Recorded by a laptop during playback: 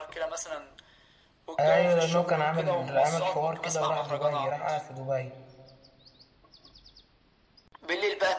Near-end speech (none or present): present